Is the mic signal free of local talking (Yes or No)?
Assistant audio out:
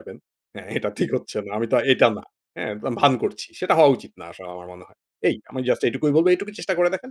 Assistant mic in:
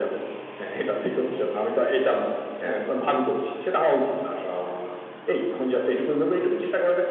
Yes